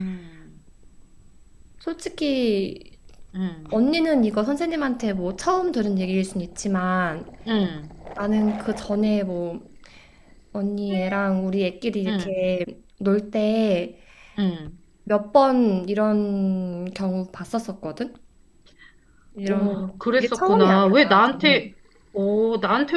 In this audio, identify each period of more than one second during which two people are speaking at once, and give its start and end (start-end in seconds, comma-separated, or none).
19.5-21.7